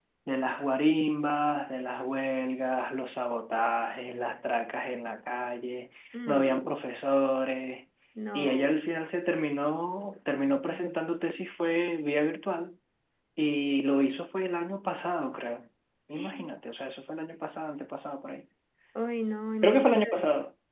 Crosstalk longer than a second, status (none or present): none